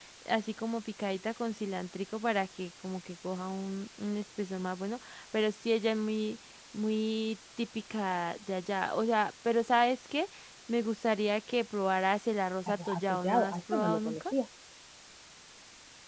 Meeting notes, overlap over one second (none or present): present